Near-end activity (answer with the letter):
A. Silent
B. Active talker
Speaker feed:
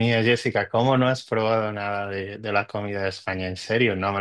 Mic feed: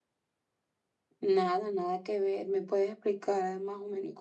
B